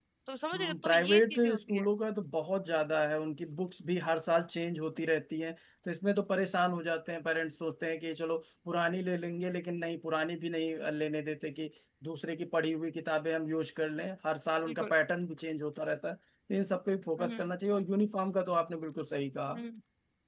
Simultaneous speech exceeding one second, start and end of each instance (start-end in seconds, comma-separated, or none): 0.5-1.8